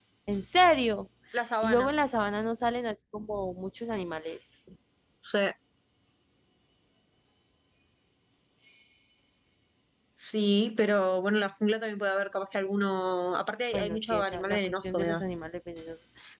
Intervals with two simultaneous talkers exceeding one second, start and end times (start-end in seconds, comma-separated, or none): 13.7-15.2